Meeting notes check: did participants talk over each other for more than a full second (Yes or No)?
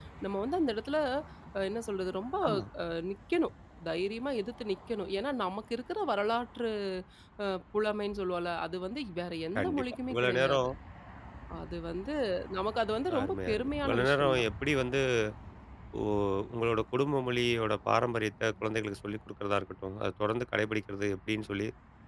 Yes